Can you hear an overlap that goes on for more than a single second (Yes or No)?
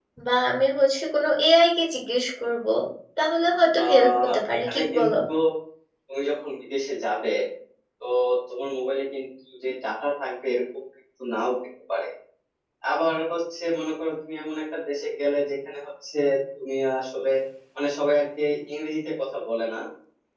Yes